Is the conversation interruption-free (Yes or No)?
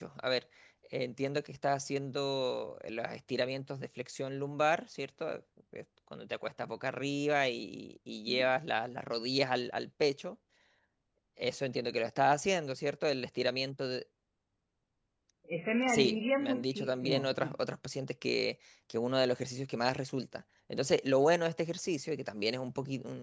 No